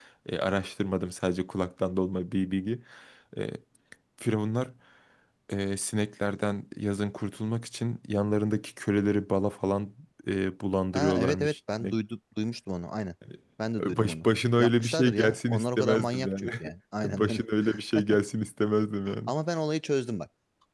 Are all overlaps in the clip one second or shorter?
No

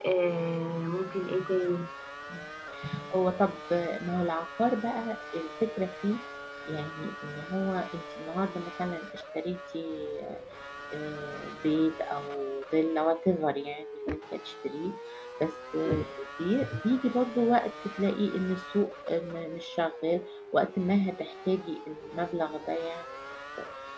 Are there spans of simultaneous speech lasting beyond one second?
No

